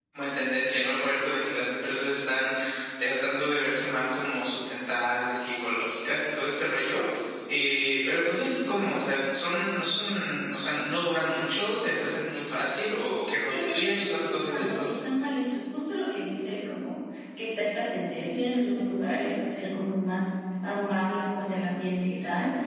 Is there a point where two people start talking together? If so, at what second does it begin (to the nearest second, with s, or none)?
13 s